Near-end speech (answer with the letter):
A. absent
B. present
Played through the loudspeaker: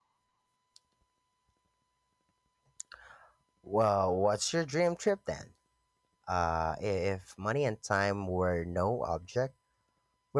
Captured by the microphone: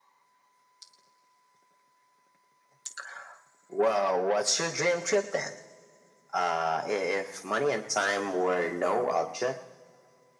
A